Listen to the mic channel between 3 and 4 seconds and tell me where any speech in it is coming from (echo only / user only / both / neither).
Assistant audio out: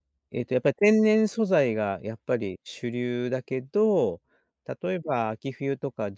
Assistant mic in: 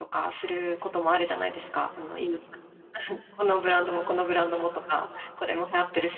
user only